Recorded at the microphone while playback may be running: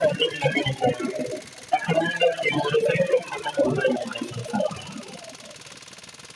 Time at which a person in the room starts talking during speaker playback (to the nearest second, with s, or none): none